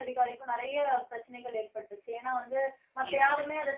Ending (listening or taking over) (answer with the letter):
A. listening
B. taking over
A